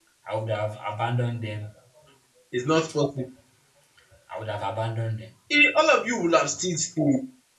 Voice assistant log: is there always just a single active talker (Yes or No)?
Yes